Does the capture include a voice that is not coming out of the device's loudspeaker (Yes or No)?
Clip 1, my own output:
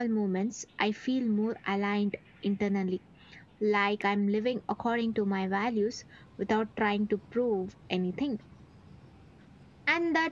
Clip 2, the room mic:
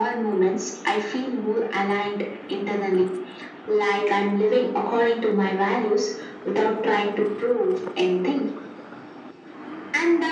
No